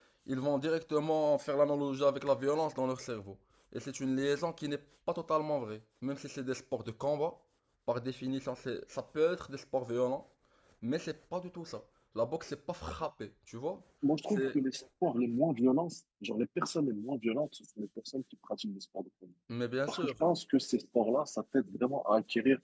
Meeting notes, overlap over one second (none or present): none